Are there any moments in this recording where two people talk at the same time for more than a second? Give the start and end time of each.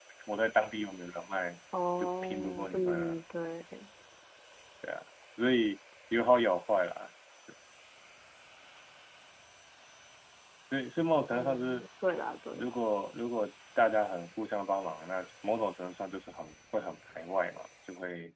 2.0-3.2

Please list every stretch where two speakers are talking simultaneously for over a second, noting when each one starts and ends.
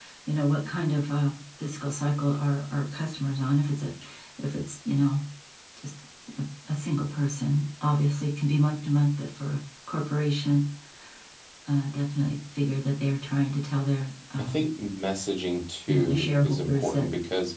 15.9-17.1

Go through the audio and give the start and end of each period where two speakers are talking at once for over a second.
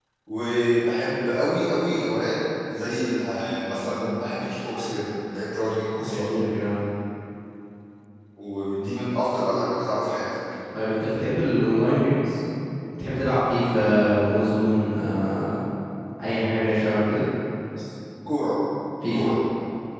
none

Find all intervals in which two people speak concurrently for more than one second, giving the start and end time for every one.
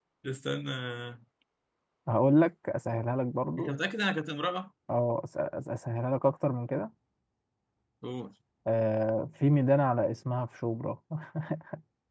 none

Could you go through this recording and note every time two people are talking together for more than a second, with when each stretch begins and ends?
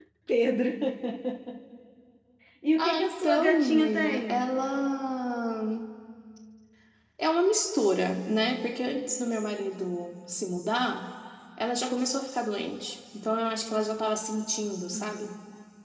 2.8-4.5

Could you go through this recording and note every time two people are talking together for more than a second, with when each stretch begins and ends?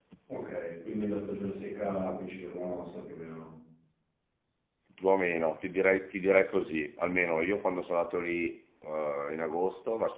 none

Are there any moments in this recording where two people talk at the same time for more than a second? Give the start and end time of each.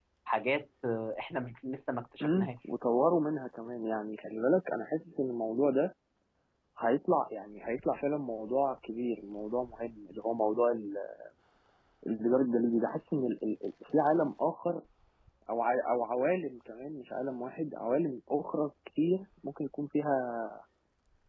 none

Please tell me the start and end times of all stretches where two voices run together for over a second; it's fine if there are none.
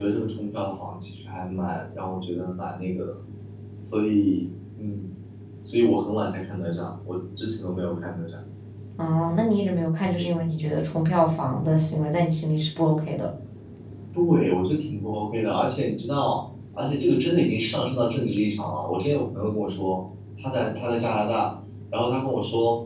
none

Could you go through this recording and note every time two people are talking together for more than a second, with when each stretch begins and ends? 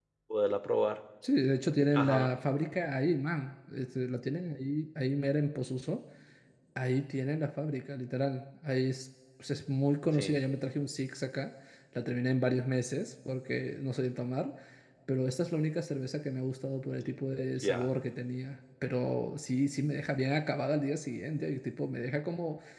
none

